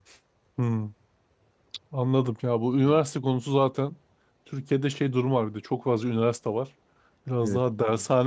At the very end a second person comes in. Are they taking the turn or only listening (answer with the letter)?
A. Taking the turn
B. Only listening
B